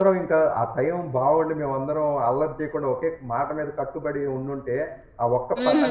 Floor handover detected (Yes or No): No